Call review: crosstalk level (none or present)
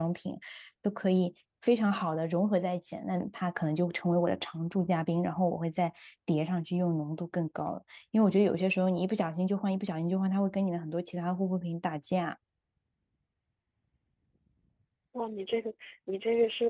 none